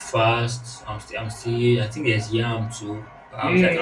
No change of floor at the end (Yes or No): No